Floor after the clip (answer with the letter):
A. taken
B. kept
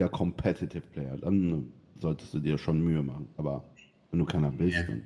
B